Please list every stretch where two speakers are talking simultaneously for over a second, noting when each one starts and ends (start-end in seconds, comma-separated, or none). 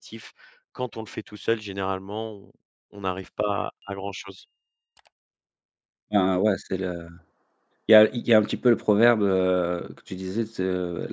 none